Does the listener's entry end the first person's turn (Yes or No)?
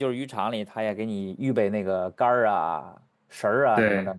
No